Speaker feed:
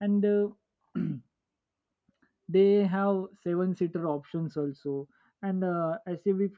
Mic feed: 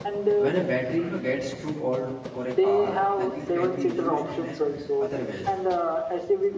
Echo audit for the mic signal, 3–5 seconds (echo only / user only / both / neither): both